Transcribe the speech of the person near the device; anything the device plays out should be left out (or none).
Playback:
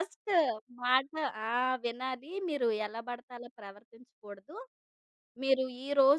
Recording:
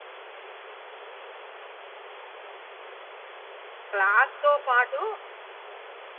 క్లాస్‌తో పాటు